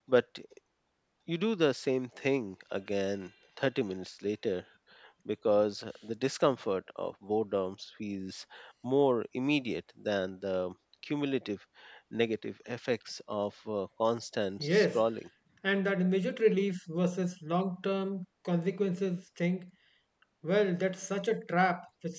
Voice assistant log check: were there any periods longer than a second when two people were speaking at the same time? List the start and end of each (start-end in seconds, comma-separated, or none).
none